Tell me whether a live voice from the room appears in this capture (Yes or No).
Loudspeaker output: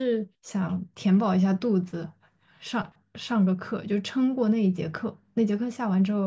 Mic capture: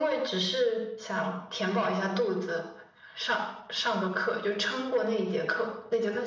No